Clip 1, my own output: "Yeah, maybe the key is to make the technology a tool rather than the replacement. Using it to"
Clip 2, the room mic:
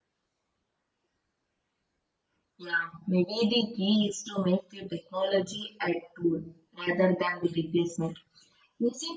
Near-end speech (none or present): none